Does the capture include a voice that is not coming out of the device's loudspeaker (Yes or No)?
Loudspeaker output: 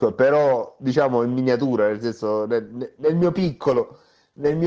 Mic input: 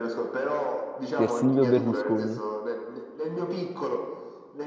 Yes